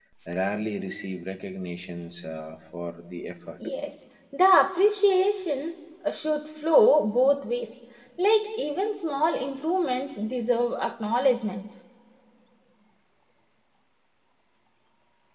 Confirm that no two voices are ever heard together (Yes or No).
Yes